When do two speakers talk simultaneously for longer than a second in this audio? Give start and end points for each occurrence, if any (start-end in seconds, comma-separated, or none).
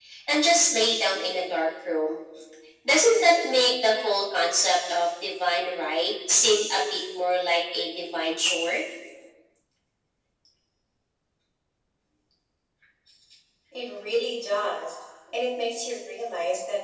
none